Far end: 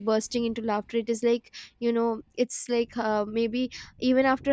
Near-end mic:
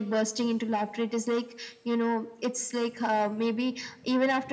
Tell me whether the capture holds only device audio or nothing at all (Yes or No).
Yes